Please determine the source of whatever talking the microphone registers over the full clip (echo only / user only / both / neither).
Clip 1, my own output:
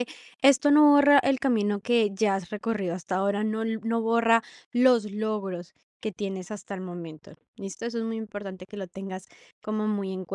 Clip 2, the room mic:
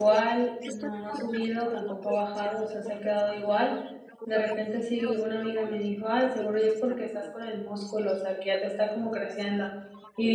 both